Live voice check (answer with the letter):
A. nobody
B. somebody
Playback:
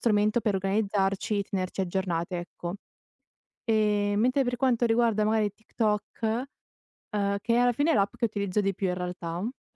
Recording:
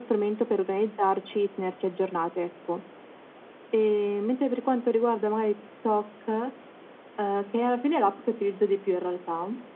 A